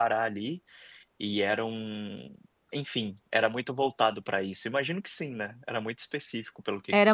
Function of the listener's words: taking over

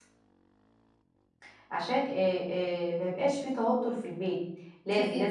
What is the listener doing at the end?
listening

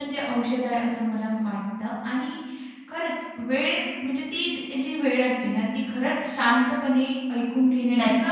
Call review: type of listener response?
taking over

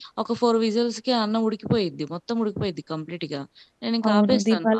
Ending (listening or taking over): taking over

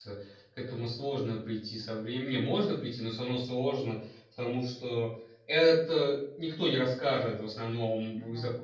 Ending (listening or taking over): listening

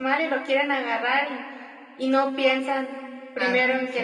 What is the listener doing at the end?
listening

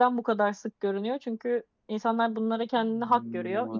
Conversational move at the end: listening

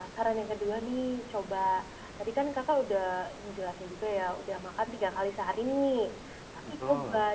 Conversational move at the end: listening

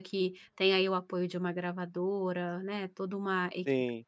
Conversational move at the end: listening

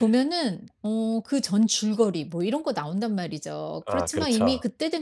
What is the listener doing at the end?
listening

